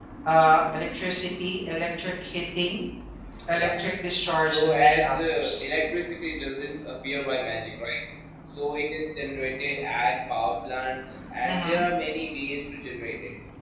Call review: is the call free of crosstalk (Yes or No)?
No